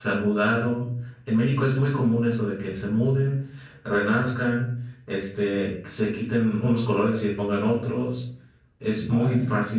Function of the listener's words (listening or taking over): listening